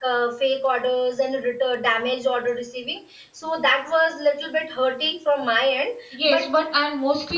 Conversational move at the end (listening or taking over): taking over